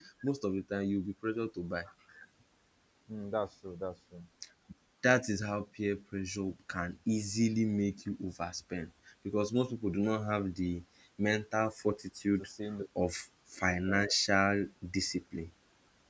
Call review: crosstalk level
none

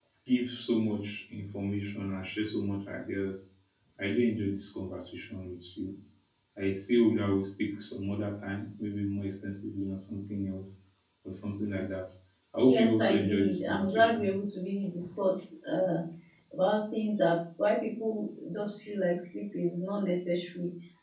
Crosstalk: present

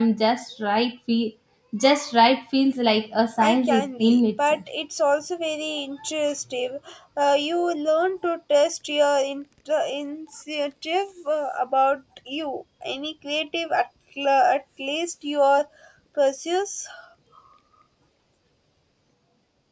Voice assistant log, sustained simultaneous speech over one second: present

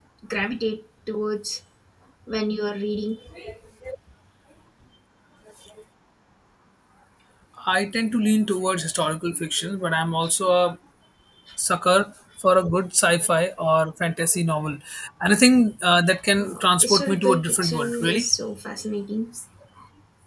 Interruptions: present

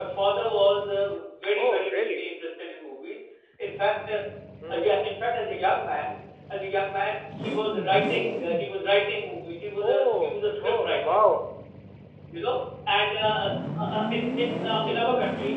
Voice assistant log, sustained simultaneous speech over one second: present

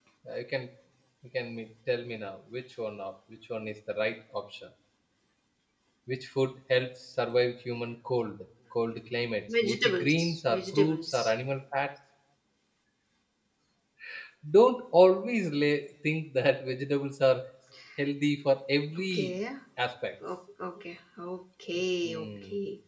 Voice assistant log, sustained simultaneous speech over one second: present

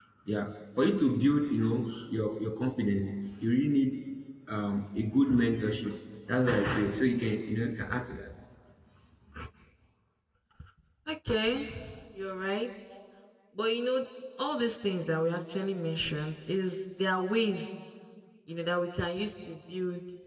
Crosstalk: none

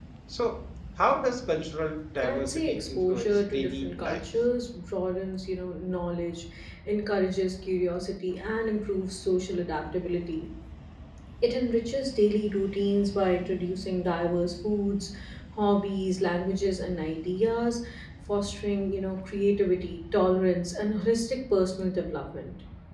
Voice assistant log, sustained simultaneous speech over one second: present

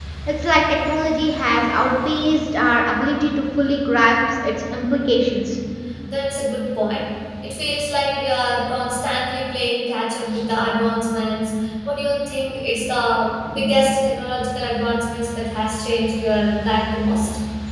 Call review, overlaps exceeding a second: none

